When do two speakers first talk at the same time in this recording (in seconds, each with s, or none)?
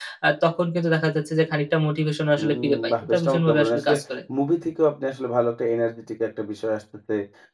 2.4 s